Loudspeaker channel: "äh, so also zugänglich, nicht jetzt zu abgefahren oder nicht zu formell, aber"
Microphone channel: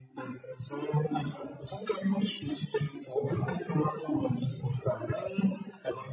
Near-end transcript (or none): none